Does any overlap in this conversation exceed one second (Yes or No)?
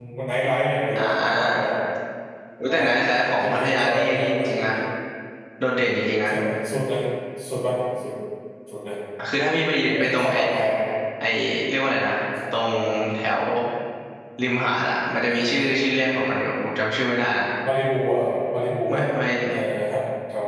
Yes